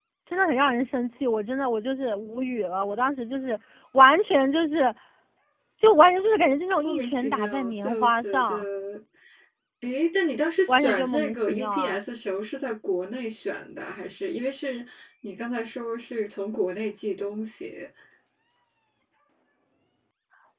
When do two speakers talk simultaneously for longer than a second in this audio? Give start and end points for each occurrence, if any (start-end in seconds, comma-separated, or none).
6.8-8.7, 10.7-12.0